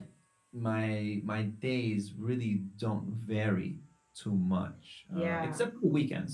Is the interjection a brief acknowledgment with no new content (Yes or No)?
Yes